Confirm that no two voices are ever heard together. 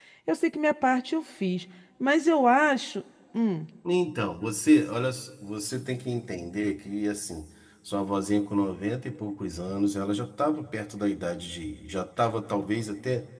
Yes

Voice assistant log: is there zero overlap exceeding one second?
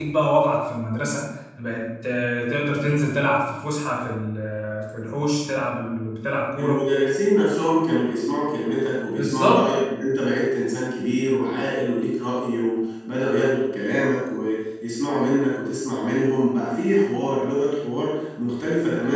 Yes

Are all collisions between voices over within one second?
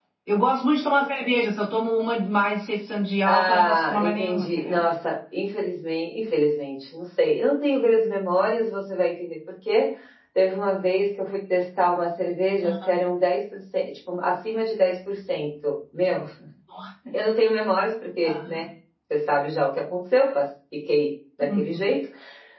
No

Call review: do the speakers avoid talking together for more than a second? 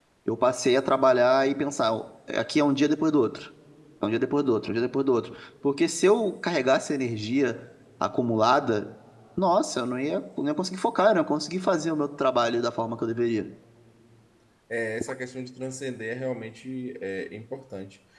Yes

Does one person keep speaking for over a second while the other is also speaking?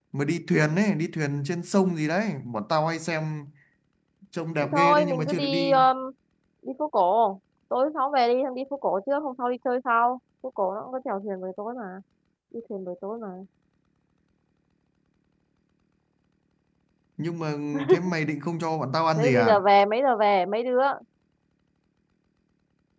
Yes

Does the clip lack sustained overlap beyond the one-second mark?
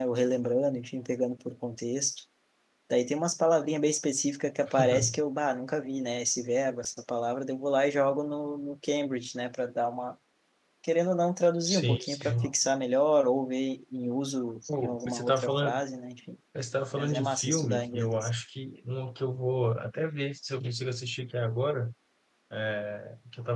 No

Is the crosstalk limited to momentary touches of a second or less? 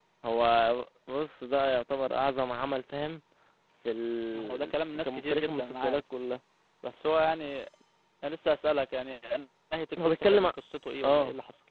No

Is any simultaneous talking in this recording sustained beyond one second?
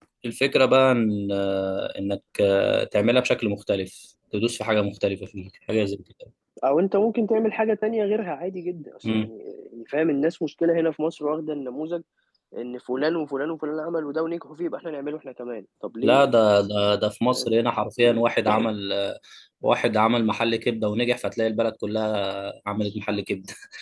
No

